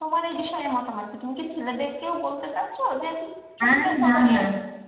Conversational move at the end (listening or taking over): taking over